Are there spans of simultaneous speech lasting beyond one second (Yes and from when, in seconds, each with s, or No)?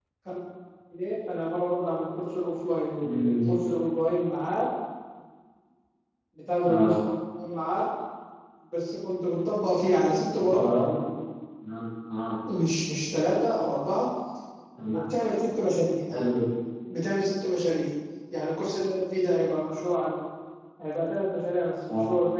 No